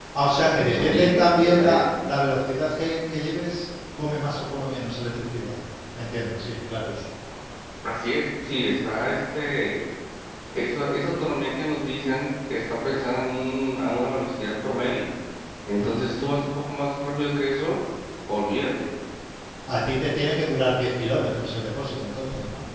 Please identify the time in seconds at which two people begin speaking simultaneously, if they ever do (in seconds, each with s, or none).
0.6 s